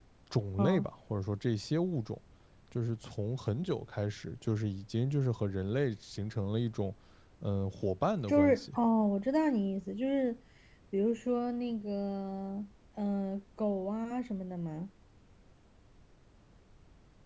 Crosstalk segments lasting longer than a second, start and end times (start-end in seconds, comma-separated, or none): none